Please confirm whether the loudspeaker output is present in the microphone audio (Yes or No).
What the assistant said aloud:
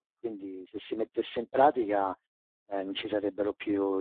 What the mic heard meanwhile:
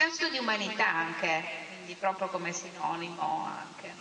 No